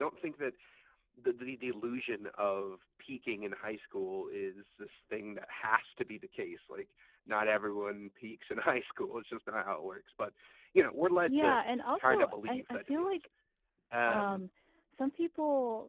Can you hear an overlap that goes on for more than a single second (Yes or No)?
Yes